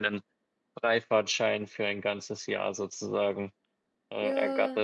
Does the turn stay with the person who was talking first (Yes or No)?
No